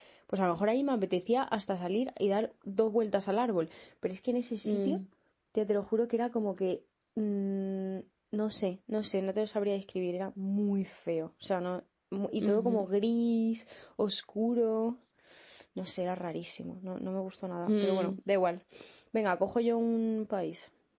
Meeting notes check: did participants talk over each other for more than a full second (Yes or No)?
No